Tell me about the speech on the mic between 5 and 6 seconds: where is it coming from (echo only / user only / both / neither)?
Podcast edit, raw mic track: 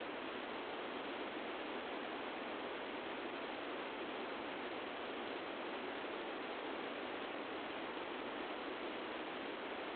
neither